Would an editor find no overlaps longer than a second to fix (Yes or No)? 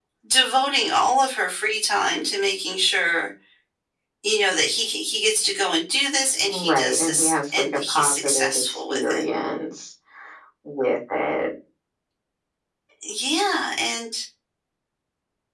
No